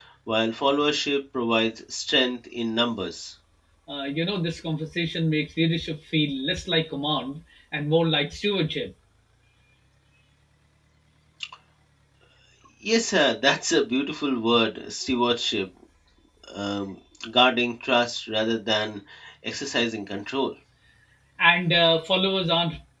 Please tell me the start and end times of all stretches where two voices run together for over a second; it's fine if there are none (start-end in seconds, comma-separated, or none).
none